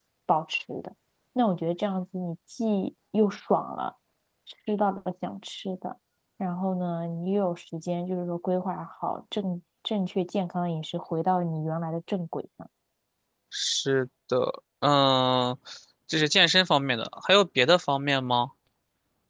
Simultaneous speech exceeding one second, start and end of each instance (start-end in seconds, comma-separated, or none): none